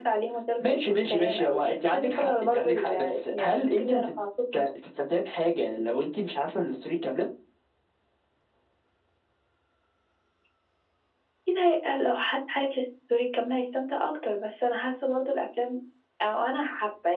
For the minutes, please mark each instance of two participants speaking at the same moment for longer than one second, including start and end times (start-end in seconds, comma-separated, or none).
0.6-4.1